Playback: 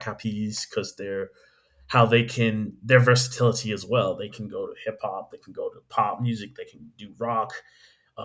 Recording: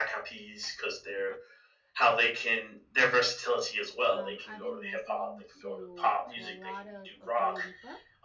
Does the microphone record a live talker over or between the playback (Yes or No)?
Yes